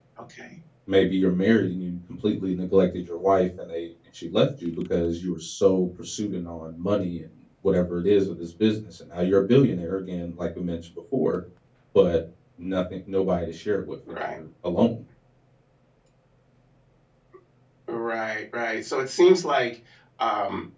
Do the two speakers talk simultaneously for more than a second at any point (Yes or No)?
No